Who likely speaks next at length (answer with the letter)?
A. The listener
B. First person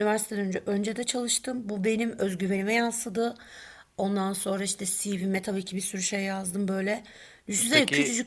B